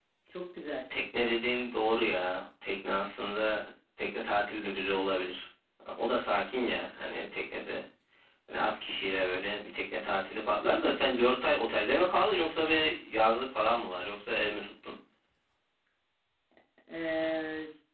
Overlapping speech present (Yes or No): No